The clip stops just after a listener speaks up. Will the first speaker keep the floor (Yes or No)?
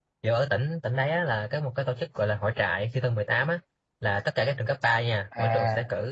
Yes